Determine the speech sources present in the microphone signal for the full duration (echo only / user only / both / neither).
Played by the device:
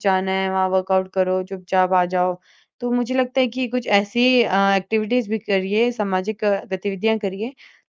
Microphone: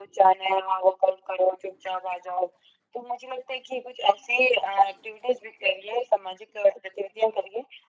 echo only